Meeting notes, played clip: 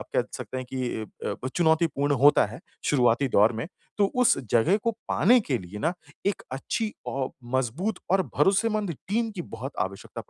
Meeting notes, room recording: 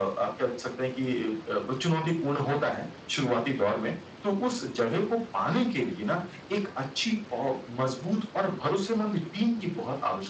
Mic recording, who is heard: echo only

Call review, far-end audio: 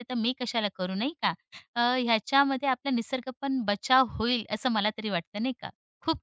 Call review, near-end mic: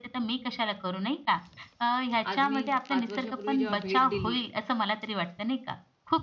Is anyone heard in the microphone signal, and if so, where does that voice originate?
both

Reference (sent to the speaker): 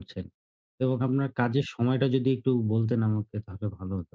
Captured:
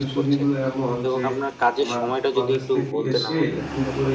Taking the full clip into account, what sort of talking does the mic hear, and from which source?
both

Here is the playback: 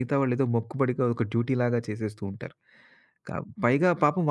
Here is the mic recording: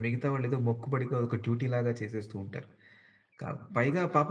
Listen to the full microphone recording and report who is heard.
echo only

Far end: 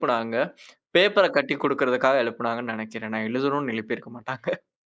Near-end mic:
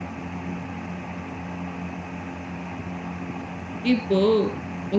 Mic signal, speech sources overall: user only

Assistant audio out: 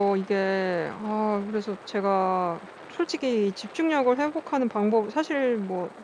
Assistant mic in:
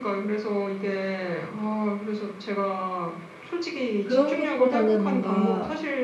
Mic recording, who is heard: both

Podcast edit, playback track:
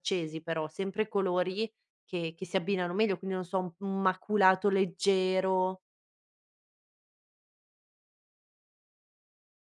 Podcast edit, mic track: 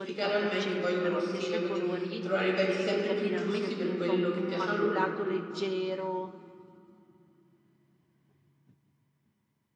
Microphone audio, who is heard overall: both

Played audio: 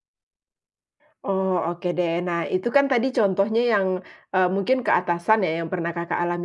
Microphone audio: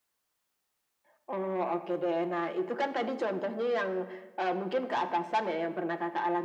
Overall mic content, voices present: echo only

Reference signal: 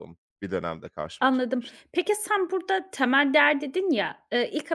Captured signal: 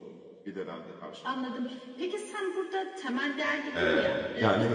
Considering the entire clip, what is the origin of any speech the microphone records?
both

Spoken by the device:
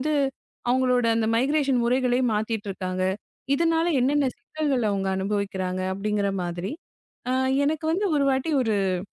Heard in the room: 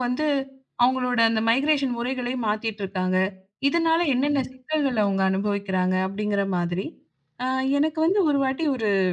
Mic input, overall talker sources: echo only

